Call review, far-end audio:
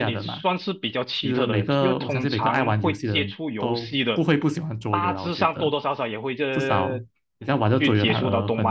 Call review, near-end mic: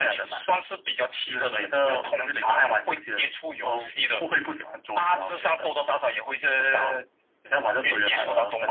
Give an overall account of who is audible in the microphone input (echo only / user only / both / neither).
echo only